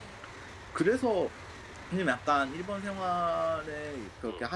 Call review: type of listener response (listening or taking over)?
listening